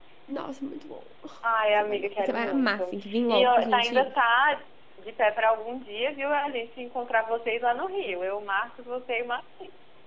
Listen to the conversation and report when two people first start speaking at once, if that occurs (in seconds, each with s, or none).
1.8 s